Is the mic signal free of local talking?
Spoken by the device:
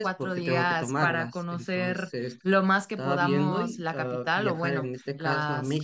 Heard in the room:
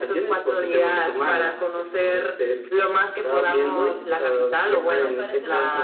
No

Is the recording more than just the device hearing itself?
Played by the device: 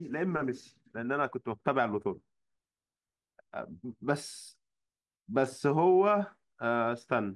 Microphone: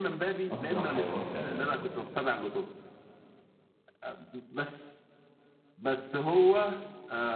Yes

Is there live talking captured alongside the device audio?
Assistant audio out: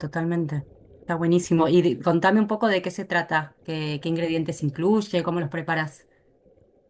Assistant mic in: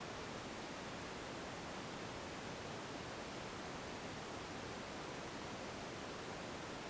No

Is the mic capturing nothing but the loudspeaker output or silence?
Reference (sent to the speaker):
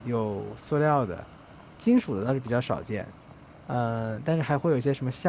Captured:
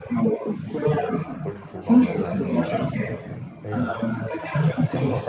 No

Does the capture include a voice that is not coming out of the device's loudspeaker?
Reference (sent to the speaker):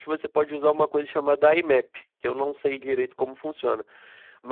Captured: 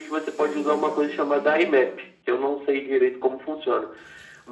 Yes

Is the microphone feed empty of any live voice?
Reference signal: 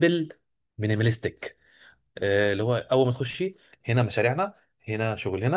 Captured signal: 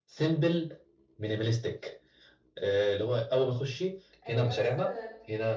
No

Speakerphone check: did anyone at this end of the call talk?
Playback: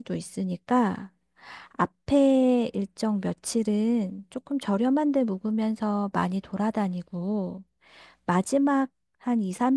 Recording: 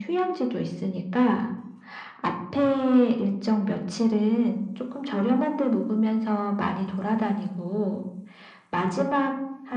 No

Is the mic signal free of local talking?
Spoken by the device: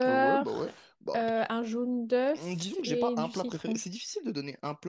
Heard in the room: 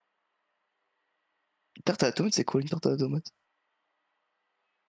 No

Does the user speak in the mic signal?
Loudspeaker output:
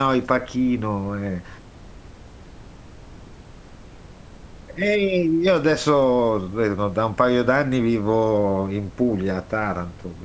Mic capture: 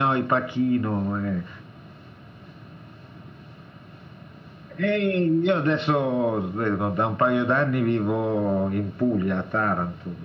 No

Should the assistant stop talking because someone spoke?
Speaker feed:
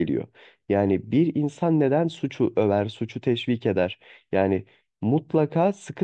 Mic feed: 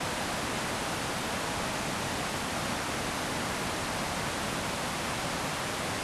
No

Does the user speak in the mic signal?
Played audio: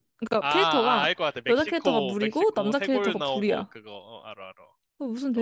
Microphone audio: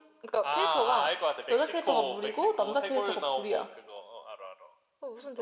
No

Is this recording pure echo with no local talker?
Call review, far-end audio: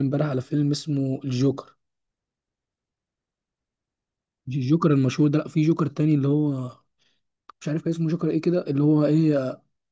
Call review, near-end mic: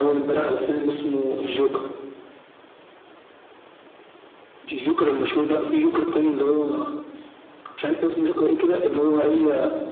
Yes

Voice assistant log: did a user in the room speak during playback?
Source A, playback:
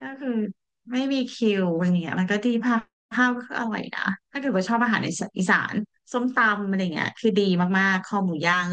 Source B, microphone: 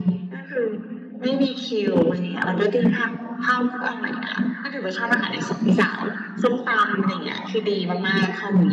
No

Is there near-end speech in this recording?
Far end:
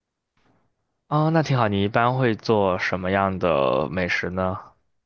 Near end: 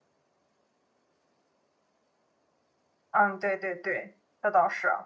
Yes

